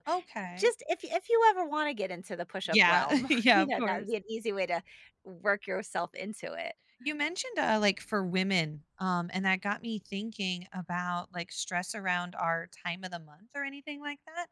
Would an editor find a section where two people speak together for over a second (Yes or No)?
Yes